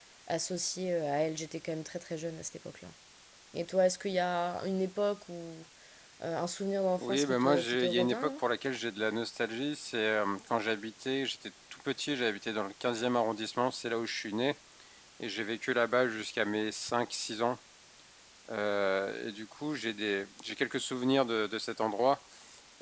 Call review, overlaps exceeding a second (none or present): present